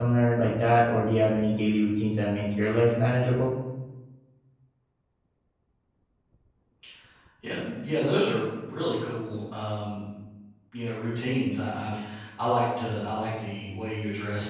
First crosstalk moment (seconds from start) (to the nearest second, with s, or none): none